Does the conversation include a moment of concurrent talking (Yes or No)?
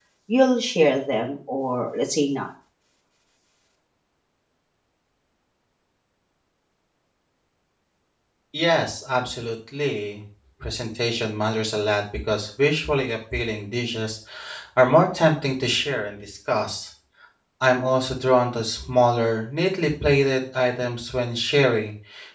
No